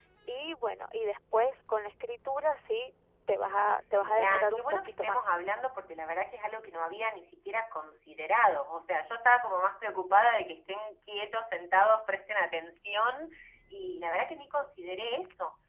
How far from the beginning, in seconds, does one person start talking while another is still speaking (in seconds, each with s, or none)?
4.0 s